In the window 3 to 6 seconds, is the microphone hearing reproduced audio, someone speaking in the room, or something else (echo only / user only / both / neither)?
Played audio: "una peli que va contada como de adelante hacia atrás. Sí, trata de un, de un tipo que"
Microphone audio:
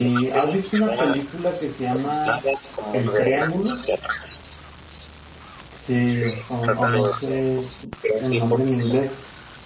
both